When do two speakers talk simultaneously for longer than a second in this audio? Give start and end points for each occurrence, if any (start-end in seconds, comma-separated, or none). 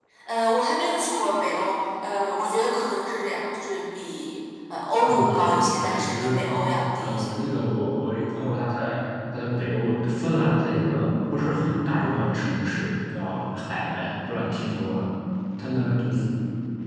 5.1-6.3